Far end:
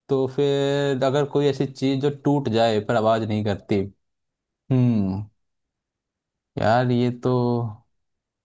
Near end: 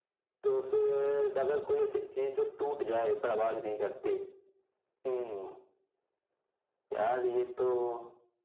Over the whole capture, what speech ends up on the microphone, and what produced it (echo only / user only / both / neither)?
echo only